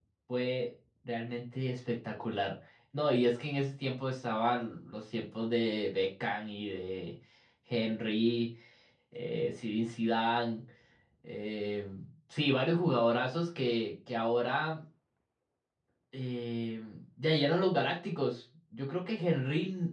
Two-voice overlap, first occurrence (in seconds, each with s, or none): none